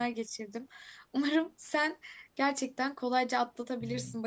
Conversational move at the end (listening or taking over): listening